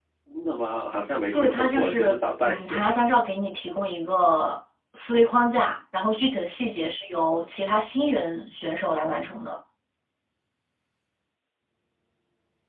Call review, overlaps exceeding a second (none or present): present